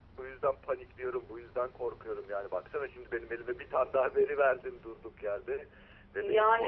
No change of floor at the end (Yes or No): Yes